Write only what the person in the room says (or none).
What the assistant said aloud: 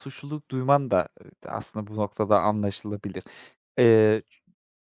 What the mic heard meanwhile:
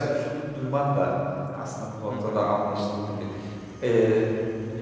Hı hı.